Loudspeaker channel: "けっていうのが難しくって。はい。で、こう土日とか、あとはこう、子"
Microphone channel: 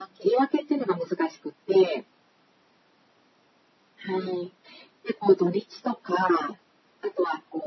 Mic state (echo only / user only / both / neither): echo only